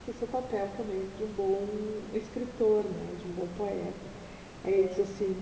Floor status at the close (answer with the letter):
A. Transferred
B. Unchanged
B